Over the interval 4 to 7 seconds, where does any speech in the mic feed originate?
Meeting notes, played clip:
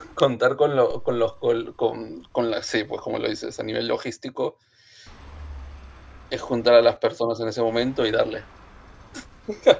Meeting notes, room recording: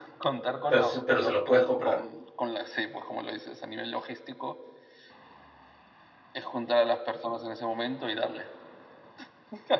echo only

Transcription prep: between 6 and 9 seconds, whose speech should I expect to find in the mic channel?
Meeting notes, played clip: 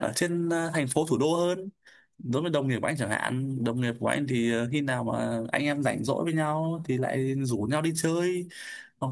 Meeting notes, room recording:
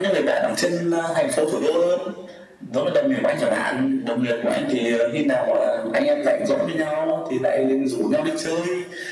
echo only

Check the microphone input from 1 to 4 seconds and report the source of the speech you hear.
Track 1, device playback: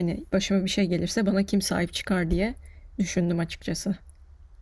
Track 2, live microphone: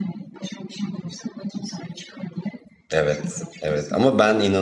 both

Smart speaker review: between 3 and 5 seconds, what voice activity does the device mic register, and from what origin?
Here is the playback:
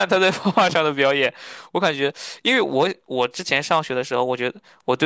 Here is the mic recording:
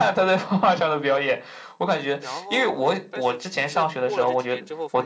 both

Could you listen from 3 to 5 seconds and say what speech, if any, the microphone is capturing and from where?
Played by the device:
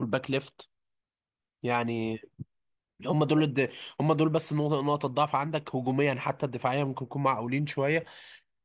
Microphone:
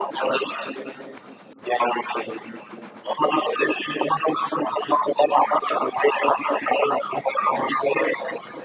echo only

